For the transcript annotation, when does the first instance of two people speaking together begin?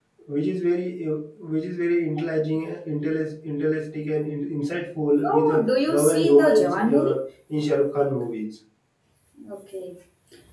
5.2 s

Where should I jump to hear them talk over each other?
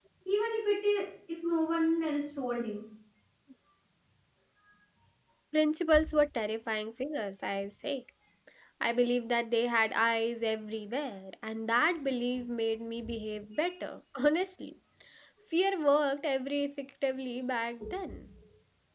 none

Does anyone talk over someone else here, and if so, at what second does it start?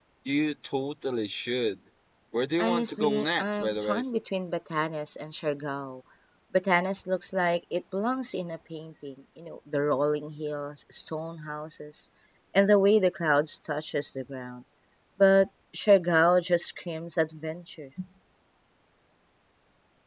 2.6 s

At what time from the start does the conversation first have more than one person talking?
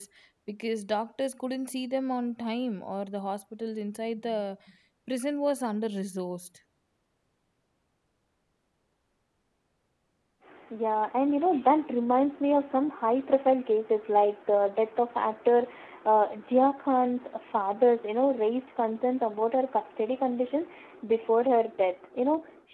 none

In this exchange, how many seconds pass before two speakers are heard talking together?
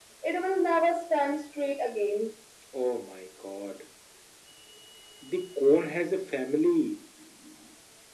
none

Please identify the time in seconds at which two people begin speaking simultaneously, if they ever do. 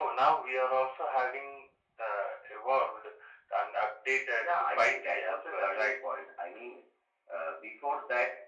4.4 s

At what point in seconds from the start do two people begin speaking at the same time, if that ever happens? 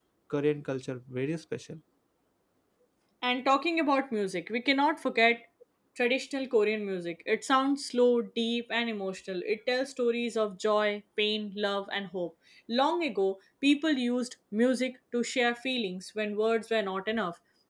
none

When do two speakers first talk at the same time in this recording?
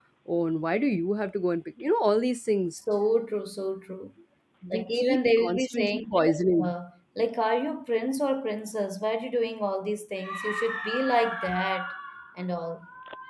4.7 s

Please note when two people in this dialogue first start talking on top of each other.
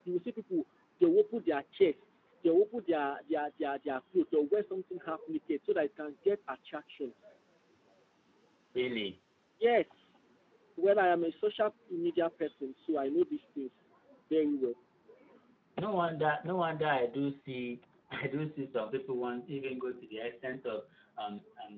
none

